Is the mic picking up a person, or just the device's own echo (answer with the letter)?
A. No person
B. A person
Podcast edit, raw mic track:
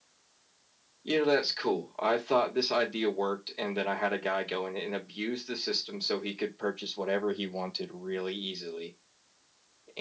A